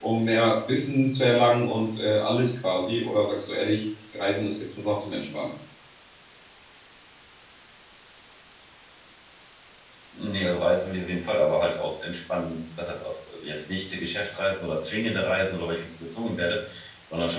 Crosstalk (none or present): none